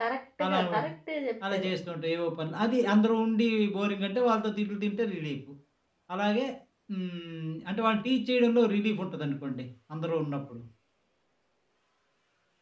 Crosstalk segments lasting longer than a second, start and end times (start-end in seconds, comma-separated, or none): none